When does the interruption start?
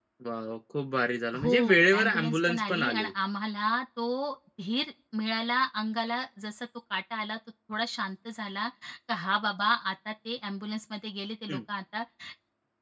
1 s

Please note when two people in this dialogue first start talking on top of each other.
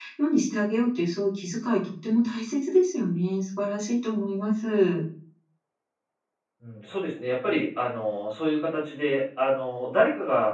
none

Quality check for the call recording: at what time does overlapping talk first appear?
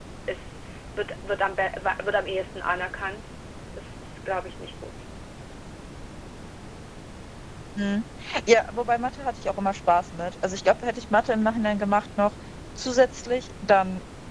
none

